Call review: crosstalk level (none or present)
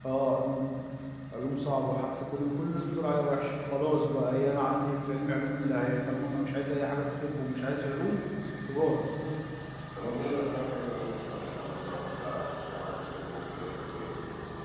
none